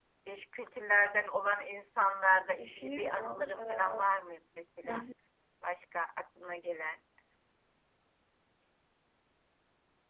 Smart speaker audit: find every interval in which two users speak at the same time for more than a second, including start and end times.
2.6-3.9

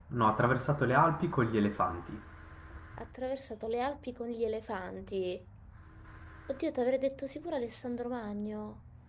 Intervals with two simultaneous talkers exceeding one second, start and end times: none

